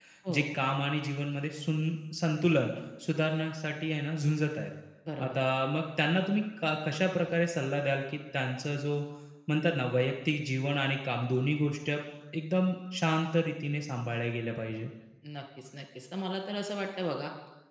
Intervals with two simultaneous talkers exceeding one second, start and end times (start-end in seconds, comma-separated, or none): none